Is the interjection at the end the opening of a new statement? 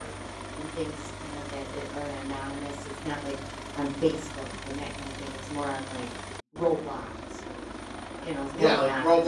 Yes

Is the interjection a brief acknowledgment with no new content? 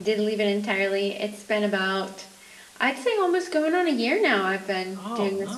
No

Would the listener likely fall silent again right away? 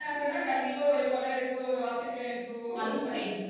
Yes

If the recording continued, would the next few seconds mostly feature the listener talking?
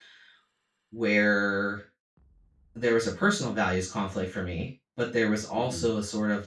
No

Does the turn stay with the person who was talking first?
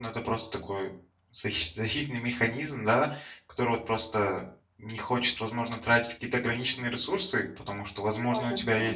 Yes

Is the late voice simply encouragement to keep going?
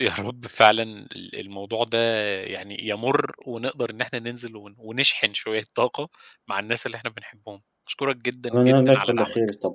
No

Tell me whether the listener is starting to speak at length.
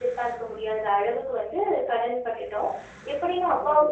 No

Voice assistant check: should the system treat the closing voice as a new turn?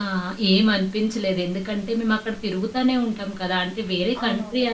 No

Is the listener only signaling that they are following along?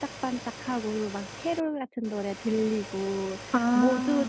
Yes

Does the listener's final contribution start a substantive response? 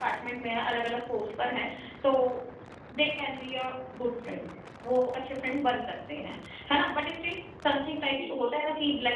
No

